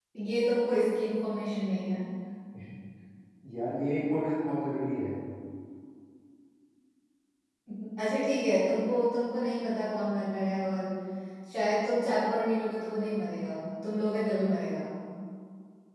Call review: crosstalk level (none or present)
none